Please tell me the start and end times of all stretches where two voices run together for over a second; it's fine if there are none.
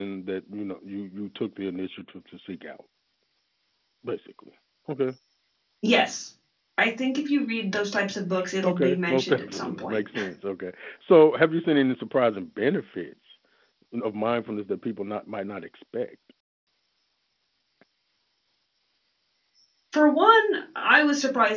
8.6-10.0

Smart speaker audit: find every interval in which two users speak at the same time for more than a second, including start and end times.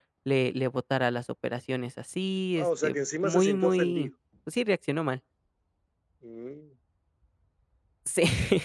2.5-4.1

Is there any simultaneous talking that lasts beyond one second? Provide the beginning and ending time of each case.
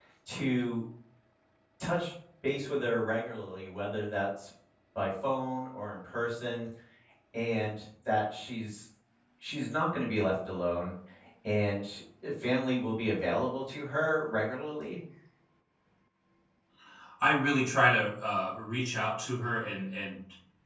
none

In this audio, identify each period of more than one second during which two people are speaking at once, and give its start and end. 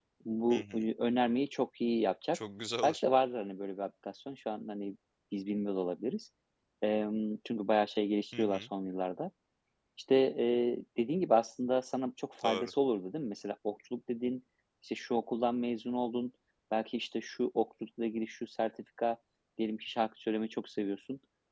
none

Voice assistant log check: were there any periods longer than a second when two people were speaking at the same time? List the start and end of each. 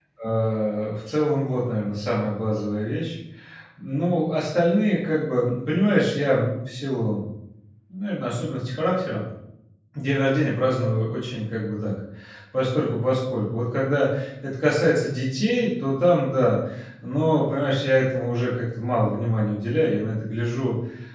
none

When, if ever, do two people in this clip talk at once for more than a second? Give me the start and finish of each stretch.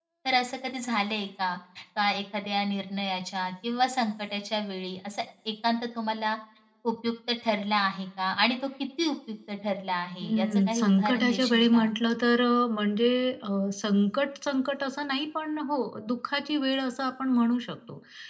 10.2-11.9

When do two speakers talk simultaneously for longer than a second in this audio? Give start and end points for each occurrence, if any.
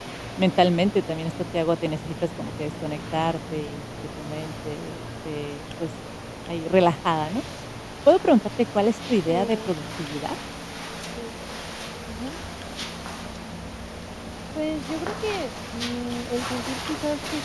none

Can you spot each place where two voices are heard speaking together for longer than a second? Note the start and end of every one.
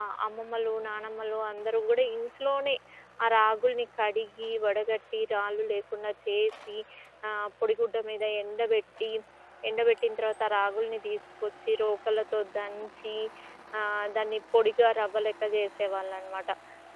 none

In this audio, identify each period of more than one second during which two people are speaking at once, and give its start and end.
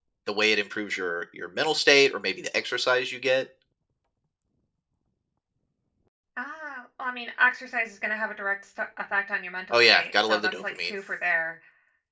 9.7-10.9

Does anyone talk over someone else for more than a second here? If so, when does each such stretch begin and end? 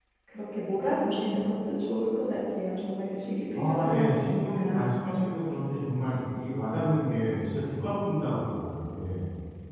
3.5-4.9

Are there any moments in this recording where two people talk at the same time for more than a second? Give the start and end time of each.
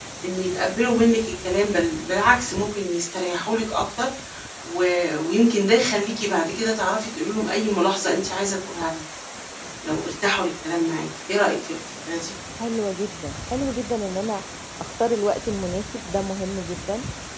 none

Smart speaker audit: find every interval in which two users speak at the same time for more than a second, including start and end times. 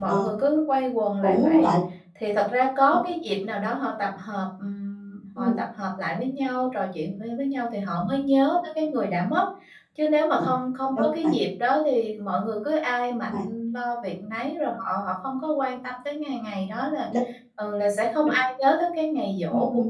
none

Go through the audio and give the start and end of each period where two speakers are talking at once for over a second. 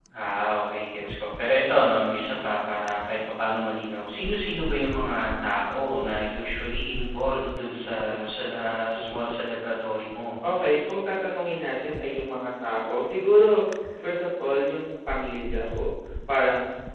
none

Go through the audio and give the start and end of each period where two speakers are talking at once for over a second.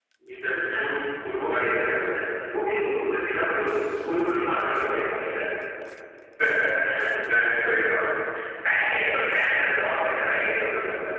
none

